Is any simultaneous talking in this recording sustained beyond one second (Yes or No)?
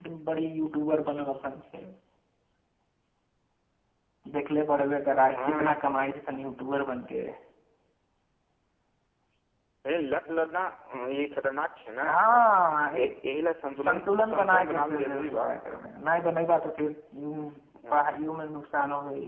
Yes